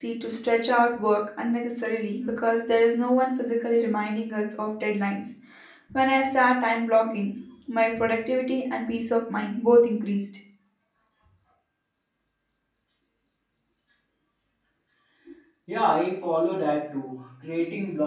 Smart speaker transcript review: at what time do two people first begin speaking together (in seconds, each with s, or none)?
none